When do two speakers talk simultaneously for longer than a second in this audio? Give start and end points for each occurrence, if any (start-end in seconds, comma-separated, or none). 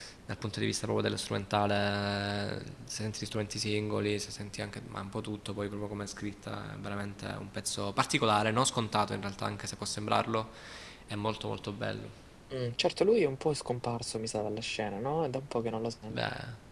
none